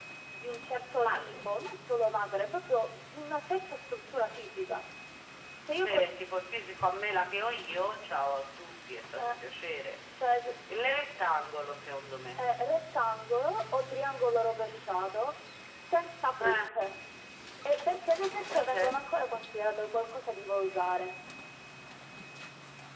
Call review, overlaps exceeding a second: none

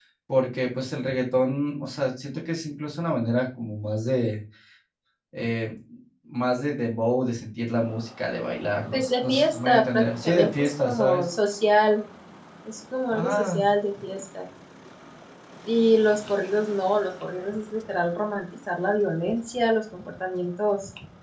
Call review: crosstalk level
present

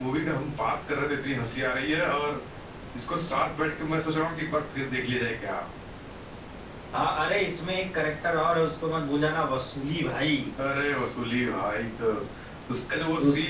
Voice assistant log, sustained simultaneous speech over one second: none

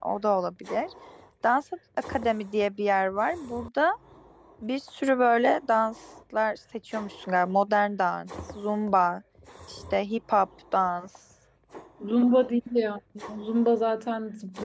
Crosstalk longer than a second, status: none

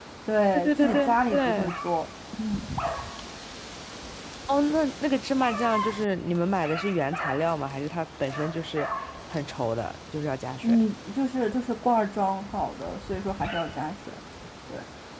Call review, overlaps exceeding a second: present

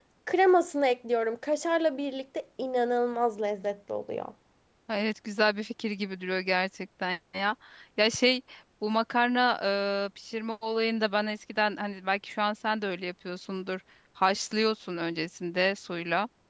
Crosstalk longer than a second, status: none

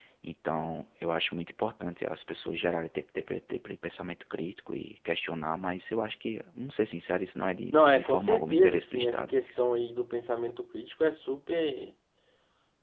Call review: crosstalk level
present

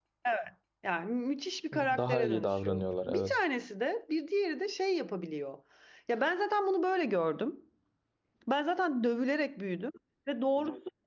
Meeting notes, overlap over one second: present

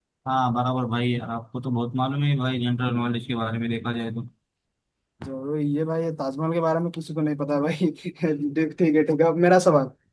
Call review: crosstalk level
none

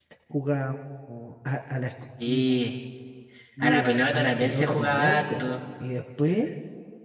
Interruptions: present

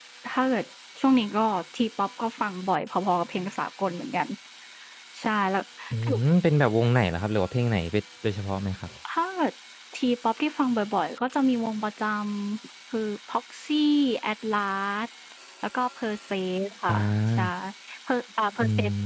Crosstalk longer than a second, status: none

